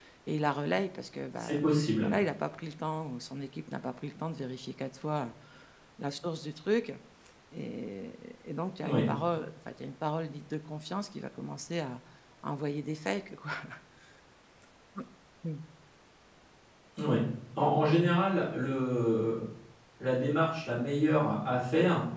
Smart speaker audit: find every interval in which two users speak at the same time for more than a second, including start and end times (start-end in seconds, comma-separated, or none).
none